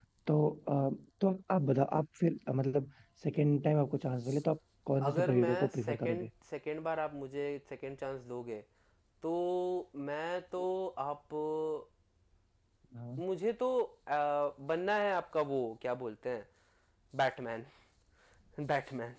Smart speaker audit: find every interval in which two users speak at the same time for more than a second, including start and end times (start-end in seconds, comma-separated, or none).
5.0-6.3